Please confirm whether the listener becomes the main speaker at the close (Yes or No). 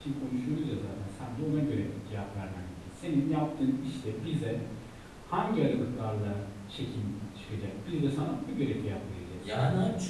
Yes